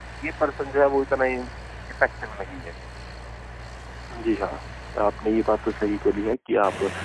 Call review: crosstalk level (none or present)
none